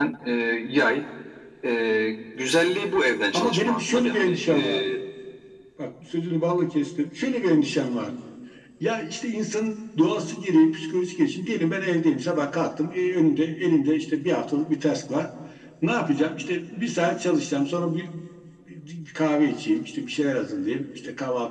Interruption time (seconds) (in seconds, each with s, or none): 3.3 s